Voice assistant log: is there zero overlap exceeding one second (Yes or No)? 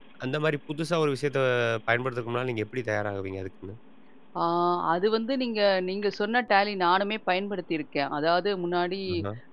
Yes